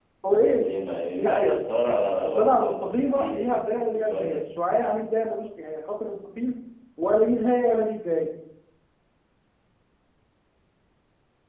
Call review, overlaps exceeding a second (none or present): present